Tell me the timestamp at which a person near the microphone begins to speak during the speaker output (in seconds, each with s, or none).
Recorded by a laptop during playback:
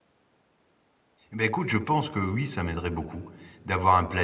1.3 s